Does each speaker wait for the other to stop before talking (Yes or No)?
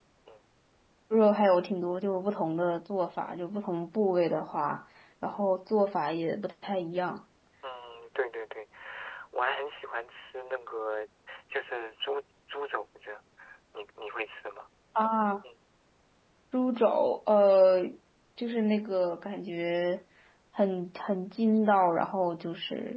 Yes